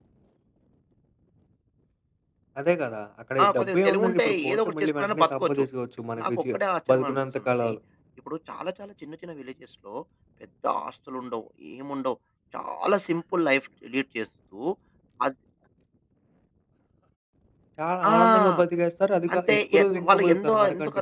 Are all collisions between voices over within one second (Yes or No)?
No